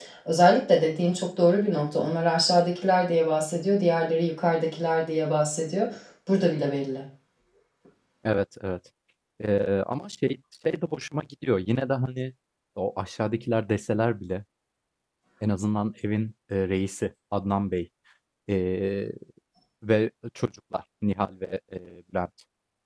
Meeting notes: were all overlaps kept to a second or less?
Yes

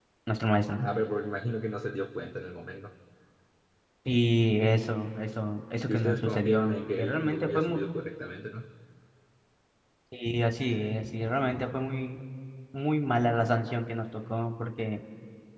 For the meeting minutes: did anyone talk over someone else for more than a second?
Yes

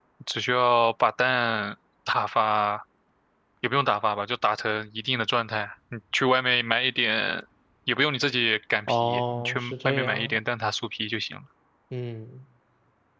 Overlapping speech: Yes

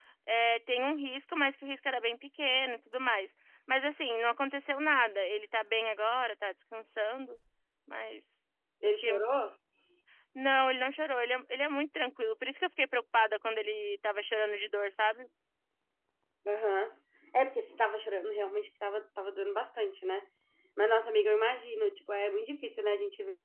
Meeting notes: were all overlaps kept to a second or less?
Yes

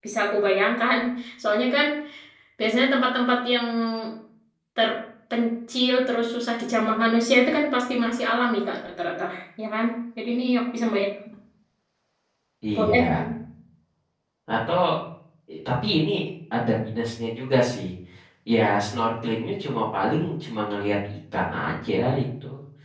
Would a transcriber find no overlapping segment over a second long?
Yes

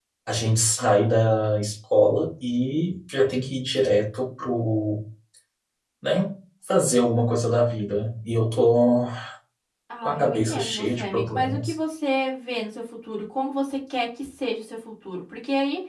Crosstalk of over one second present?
Yes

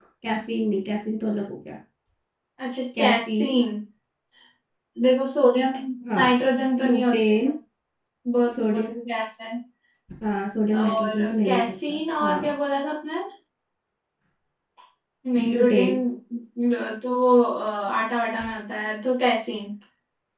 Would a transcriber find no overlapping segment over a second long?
No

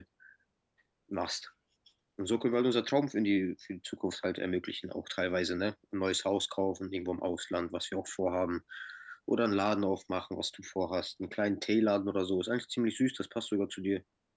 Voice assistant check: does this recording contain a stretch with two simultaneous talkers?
No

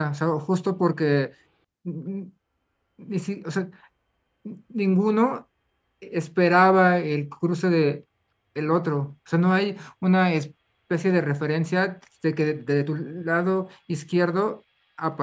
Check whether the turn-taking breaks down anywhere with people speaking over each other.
No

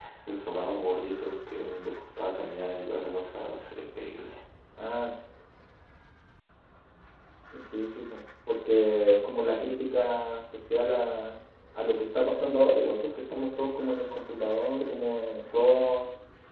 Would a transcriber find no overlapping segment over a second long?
Yes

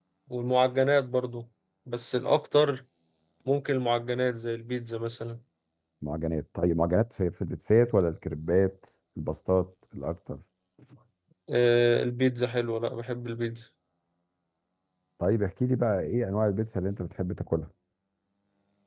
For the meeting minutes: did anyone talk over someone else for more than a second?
No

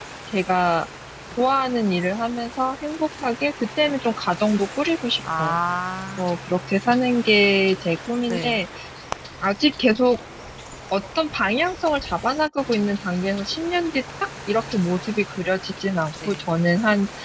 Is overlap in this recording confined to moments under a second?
Yes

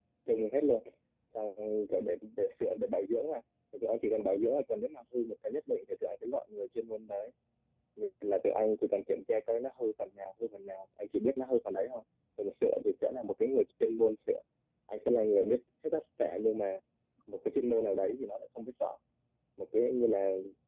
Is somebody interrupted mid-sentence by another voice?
No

